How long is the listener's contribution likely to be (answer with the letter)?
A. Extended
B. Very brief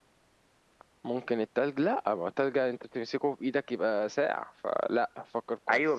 A